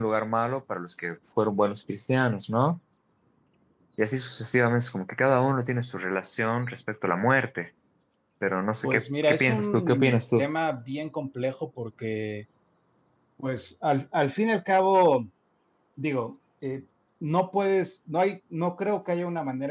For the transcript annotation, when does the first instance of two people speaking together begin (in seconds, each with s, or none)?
8.8 s